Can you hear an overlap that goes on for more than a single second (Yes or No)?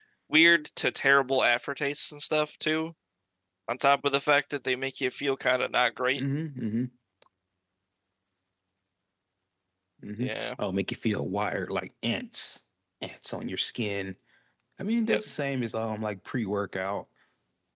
No